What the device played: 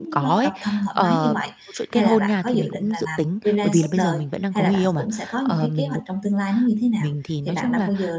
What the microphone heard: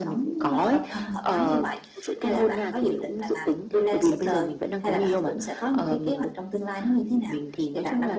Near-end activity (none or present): none